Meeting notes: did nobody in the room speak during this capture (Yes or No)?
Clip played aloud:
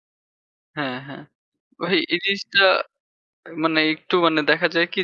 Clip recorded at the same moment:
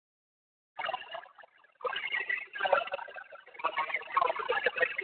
Yes